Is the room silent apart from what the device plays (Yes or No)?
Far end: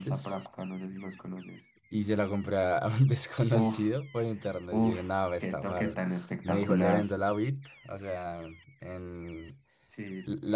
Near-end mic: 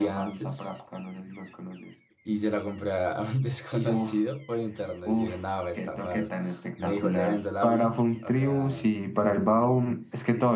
No